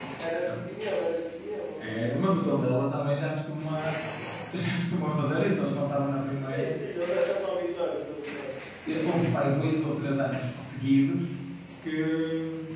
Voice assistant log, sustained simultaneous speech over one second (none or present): none